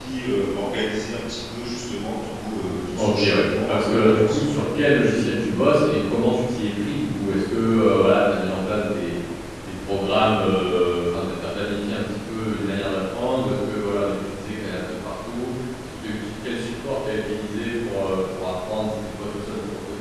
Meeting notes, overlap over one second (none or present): present